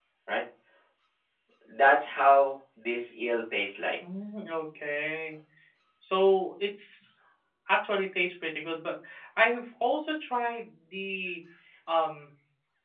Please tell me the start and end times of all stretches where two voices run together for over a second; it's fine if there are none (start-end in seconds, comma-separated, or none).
none